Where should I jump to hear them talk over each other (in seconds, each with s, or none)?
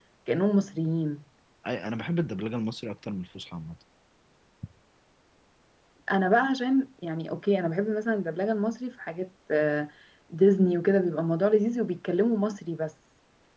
none